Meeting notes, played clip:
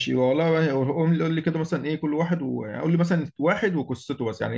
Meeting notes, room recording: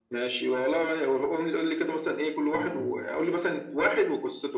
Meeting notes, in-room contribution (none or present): present